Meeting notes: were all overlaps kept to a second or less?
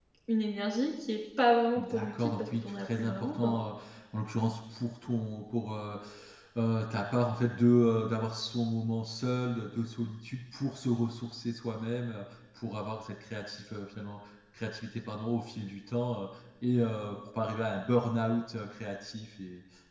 No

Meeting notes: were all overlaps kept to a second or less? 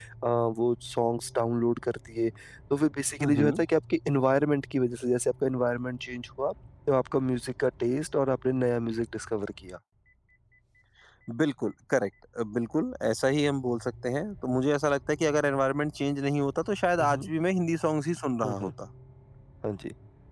Yes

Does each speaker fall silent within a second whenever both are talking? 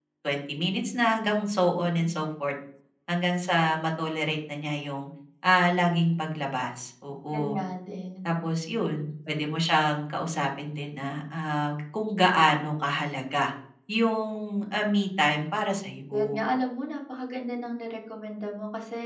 Yes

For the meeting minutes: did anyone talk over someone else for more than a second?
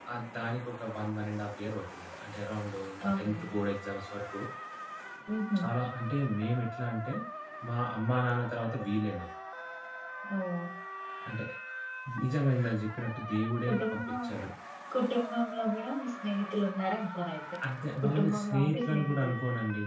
Yes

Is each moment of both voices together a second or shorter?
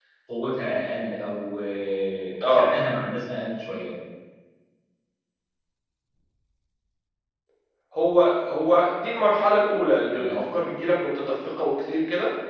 Yes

